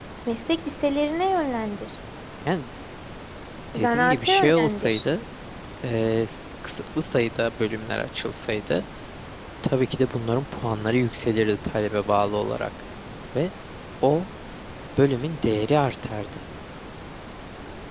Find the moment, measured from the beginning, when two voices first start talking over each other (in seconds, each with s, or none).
3.8 s